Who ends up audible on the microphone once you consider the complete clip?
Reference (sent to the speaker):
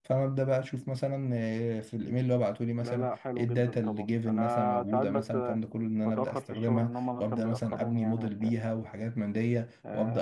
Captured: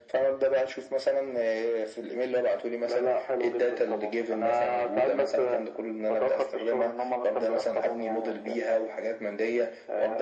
echo only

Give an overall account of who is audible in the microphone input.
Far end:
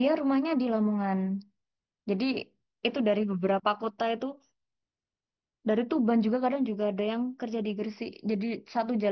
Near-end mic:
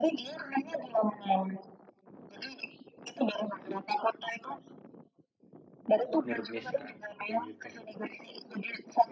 both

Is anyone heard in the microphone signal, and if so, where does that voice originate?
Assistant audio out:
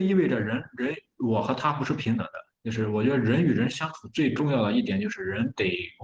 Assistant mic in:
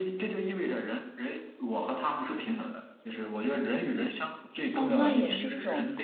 both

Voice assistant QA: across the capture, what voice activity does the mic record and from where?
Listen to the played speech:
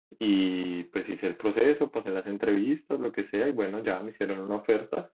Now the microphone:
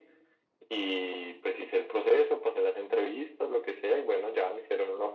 echo only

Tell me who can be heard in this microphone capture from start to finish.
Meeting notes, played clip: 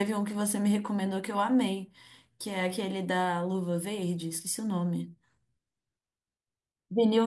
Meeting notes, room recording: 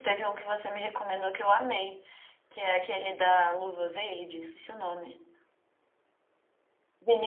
echo only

